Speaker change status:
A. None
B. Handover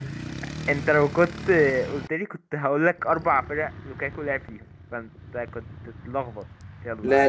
B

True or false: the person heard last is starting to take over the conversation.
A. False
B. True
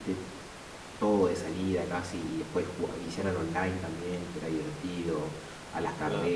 A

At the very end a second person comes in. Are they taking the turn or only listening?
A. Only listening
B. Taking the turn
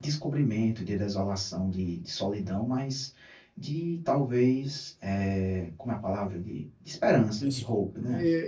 B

